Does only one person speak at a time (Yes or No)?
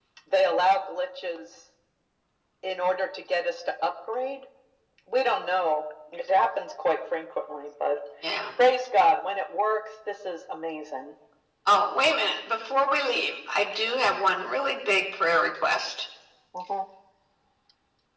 Yes